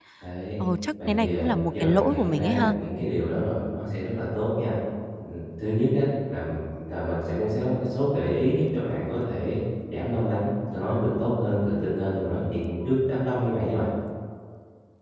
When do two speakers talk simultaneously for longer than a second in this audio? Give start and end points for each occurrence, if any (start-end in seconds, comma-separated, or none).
1.1-2.7